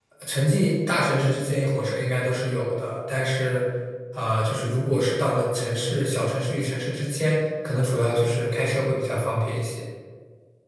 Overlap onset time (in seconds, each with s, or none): none